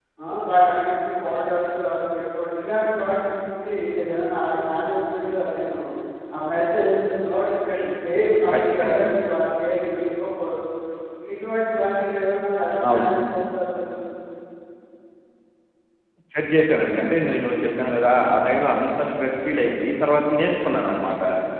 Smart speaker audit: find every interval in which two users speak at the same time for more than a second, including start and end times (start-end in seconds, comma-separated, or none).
none